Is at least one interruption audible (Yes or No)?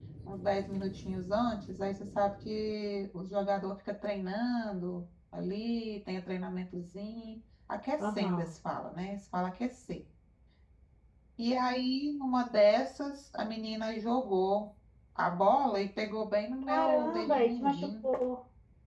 Yes